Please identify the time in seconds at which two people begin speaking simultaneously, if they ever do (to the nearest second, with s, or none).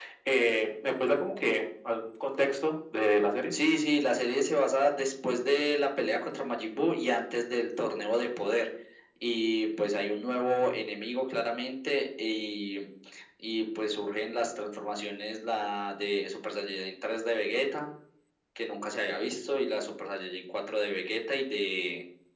none